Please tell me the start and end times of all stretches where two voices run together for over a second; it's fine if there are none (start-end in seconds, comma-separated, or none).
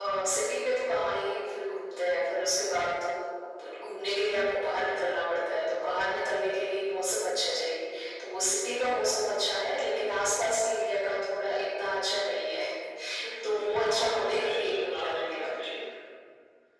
13.4-15.5